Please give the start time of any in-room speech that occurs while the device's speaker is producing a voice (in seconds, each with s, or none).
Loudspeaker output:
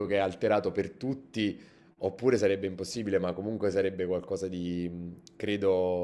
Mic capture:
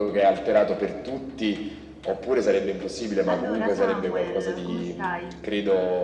3.2 s